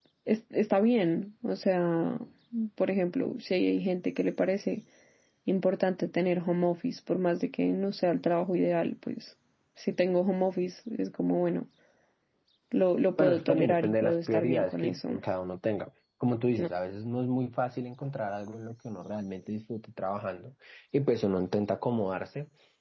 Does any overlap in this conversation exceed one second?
Yes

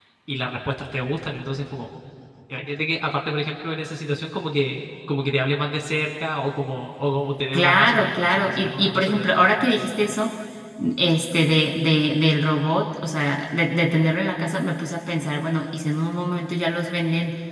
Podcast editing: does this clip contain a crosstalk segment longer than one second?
Yes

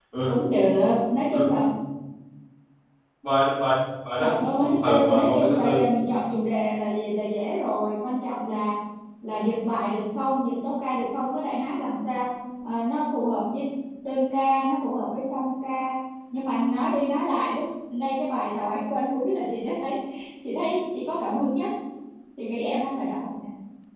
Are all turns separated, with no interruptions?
No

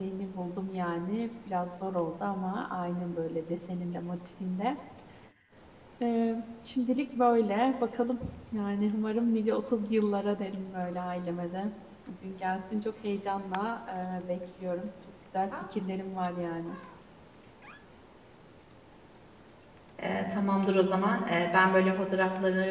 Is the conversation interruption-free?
Yes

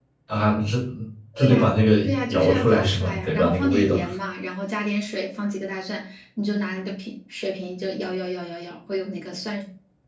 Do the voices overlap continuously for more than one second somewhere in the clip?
Yes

